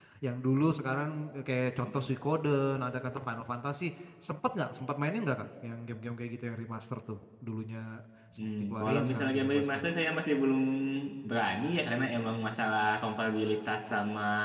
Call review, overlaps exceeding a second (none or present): present